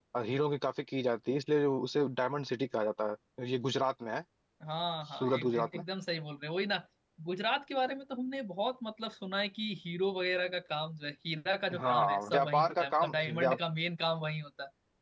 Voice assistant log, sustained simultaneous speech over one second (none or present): present